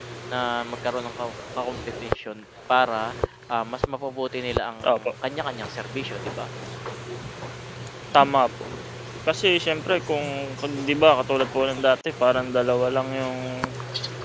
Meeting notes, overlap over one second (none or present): none